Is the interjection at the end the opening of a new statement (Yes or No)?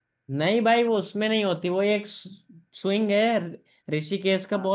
No